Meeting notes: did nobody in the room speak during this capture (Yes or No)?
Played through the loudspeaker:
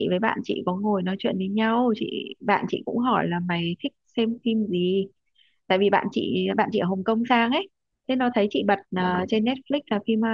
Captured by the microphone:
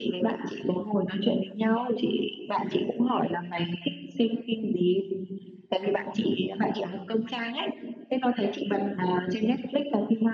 Yes